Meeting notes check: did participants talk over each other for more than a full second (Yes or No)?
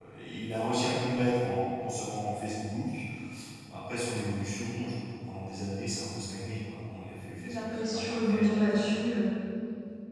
Yes